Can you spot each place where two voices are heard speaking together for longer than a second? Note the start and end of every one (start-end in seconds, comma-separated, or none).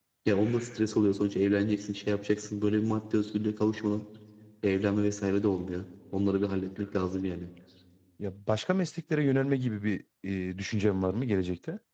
none